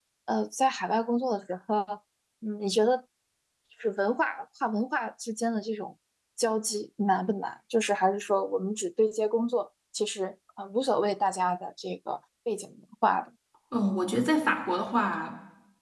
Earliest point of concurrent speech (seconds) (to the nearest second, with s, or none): none